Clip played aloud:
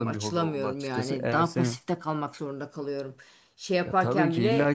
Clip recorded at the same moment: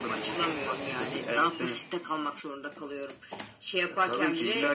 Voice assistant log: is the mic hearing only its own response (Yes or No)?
Yes